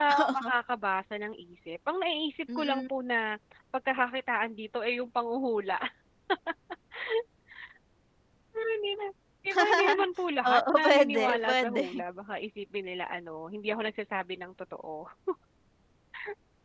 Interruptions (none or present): present